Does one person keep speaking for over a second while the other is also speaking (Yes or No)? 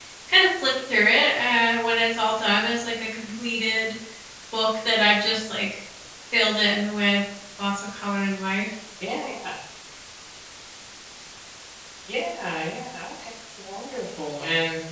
No